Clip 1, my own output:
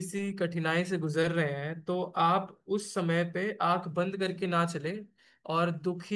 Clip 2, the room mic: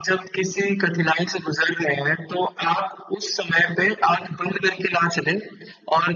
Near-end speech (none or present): none